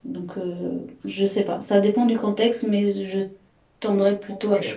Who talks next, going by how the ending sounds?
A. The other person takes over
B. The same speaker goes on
A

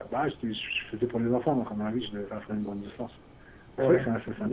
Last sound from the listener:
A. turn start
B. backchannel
A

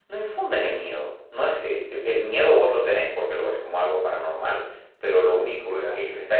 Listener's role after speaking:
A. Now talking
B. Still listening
B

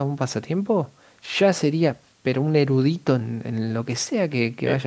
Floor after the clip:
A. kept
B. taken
B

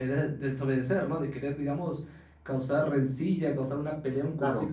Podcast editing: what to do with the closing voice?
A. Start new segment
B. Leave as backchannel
B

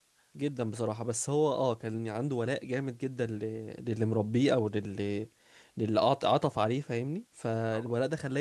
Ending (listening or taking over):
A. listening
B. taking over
A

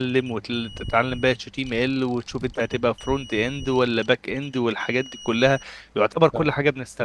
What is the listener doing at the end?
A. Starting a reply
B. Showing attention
B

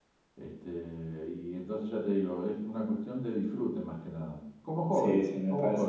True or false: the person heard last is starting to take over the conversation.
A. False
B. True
B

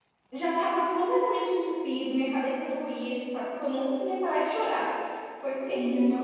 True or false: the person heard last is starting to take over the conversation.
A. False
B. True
B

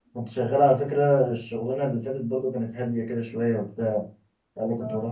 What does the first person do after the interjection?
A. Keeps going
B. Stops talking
A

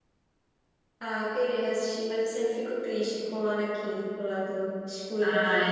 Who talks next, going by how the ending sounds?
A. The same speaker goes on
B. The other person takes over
B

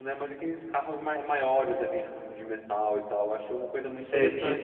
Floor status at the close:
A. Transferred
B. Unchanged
A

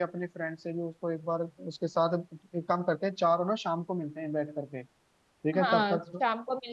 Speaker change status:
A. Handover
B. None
A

